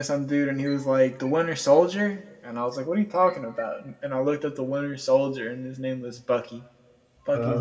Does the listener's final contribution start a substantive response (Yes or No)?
No